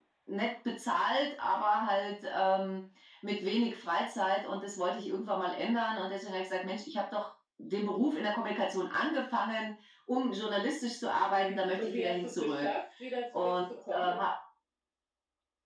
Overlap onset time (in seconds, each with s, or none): 11.3 s